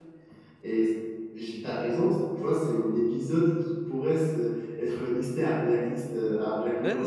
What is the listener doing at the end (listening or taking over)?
taking over